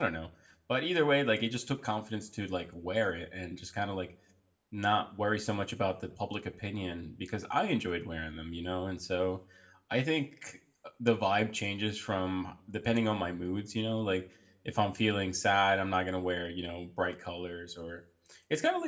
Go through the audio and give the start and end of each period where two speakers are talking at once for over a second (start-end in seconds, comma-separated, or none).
none